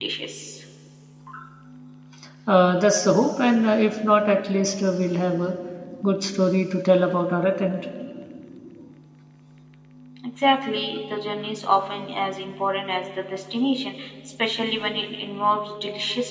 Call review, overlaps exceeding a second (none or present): none